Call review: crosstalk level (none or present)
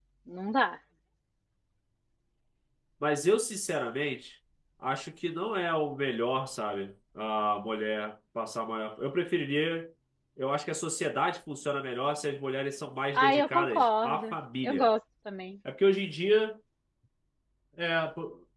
present